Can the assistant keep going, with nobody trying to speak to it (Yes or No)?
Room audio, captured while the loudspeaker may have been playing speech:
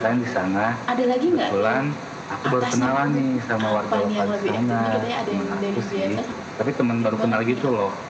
No